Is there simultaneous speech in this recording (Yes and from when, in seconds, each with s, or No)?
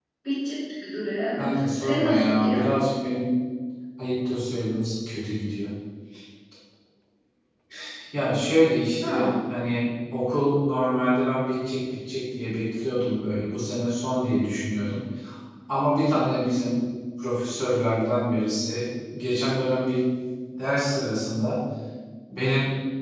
Yes, from 1.4 s